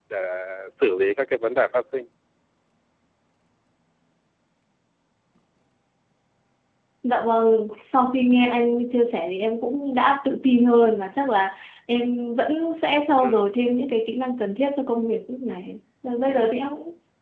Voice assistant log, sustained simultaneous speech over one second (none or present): none